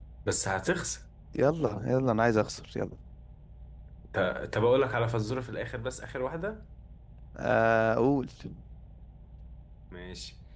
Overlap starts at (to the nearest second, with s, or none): none